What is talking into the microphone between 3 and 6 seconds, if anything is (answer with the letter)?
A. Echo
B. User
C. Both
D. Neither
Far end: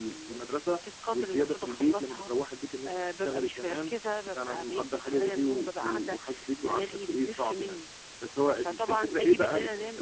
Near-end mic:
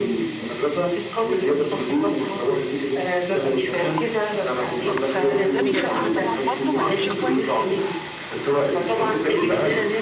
C